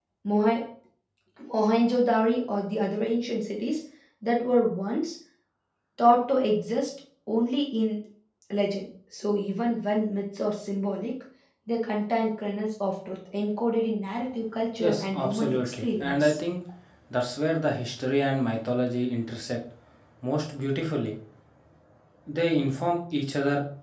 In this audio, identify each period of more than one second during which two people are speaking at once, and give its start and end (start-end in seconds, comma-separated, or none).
14.8-16.4